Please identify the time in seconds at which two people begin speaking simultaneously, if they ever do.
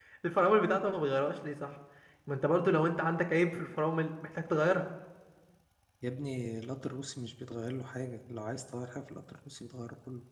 none

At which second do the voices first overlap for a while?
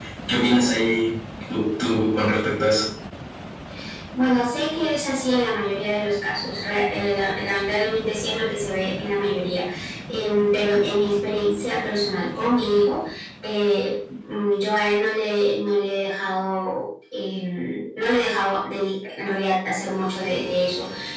none

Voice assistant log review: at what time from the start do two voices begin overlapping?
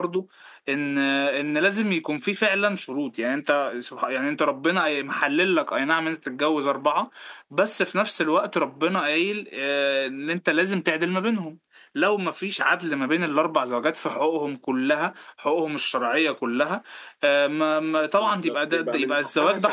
18.2 s

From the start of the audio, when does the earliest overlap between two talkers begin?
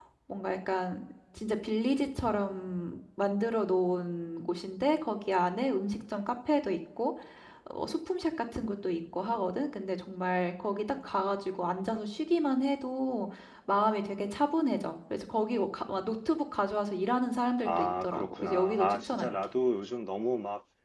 17.6 s

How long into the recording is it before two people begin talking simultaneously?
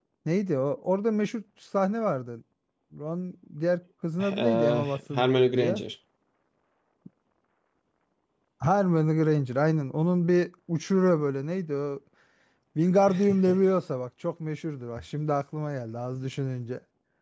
4.2 s

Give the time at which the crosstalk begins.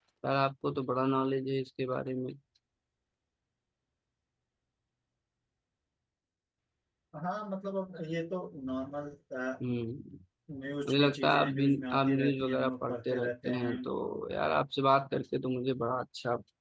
10.9 s

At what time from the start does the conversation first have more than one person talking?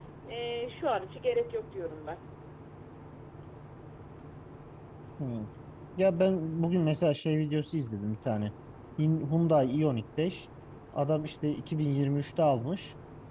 none

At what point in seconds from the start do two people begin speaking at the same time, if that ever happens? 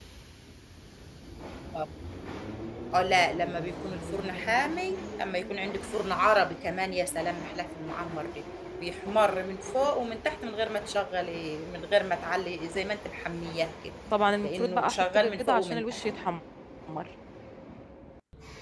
14.4 s

